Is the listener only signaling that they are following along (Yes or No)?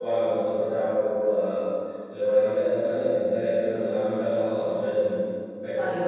No